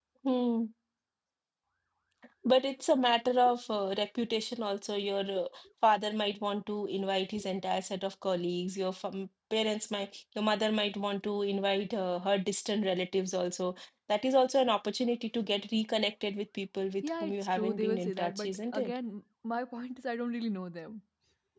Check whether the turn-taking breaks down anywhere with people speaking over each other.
Yes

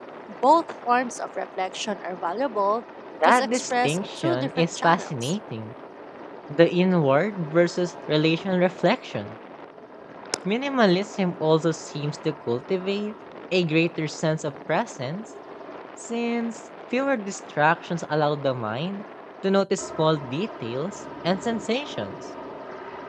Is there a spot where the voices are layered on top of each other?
Yes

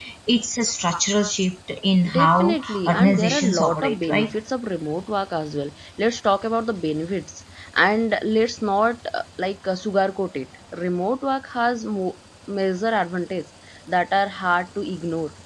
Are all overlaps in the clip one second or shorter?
No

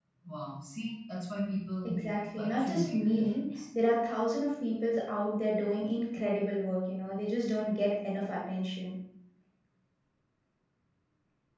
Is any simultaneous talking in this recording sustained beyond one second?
Yes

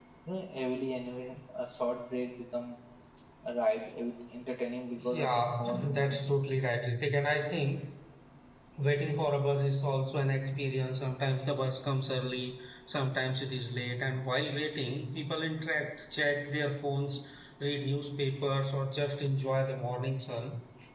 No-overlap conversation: No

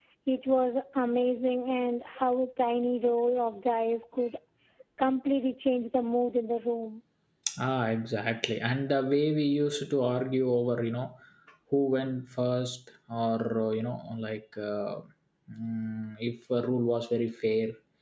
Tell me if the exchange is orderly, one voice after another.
Yes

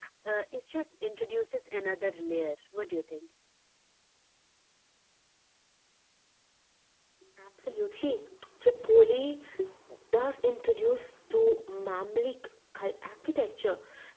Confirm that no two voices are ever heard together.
Yes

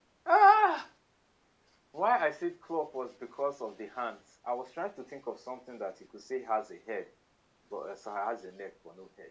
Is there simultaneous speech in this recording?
No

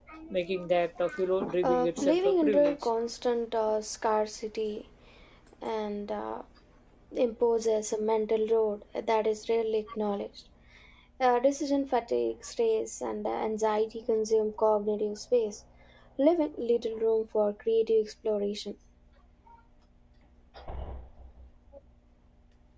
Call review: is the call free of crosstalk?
No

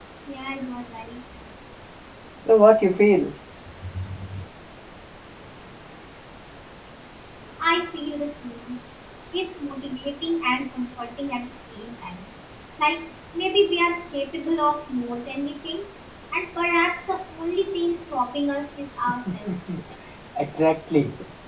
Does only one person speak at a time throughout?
Yes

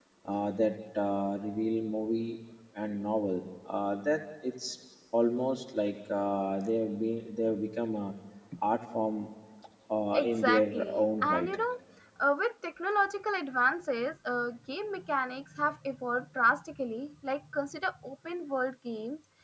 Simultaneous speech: Yes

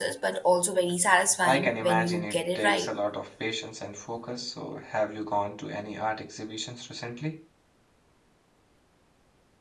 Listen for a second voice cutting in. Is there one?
Yes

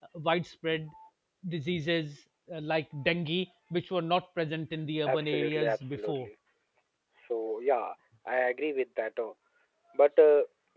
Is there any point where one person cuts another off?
Yes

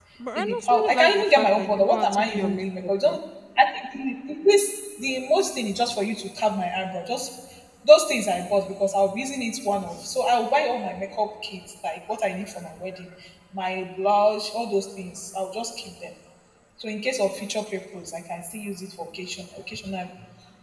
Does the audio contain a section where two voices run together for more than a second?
Yes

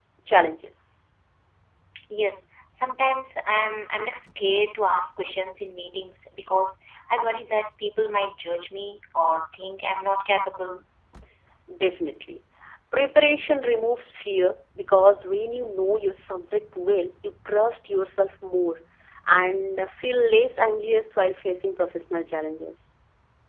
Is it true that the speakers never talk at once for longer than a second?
Yes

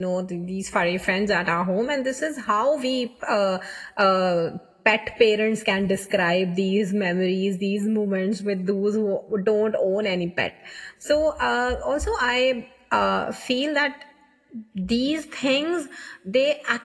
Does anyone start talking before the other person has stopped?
No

